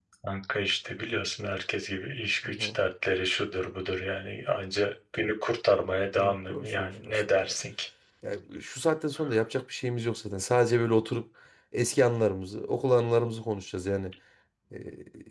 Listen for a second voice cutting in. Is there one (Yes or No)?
Yes